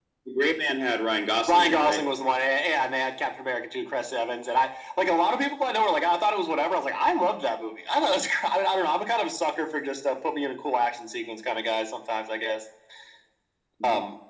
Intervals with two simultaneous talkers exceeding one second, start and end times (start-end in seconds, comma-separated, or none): none